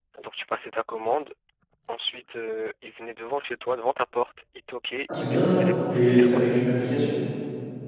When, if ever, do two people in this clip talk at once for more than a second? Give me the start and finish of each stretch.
5.1-6.6

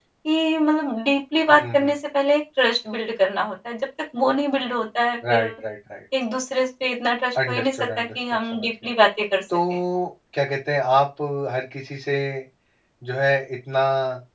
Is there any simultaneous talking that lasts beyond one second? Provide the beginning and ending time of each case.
7.5-8.9

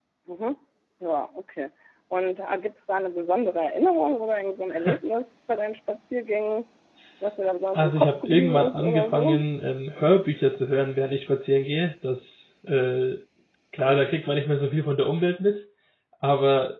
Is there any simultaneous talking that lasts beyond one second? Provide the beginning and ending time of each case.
7.7-9.4

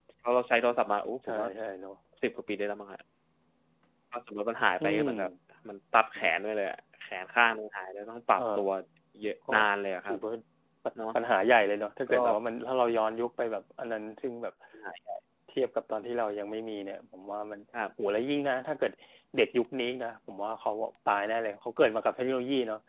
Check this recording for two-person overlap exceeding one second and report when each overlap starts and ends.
none

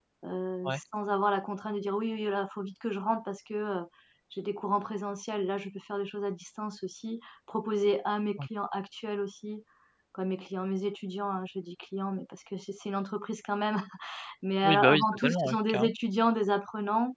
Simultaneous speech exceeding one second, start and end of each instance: 14.6-15.9

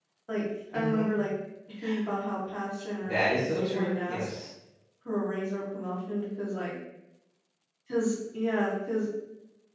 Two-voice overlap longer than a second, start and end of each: 3.0-4.3

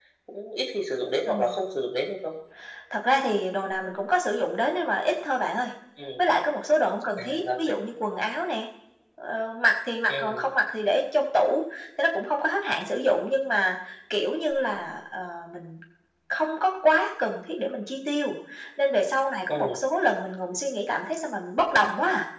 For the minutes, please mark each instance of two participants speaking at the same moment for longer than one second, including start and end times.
none

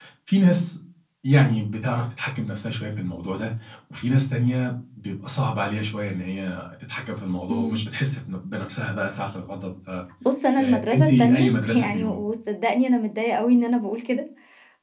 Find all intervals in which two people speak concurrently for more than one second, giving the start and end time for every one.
10.6-12.2

